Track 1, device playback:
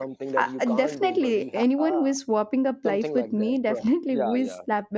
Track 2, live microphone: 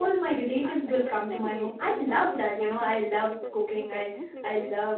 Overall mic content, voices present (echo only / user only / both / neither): both